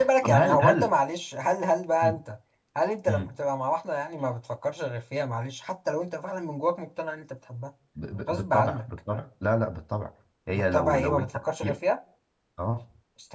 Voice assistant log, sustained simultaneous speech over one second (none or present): present